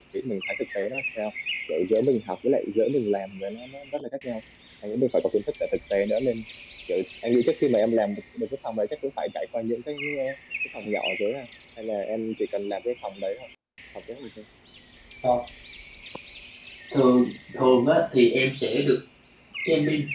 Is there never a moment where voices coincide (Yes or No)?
Yes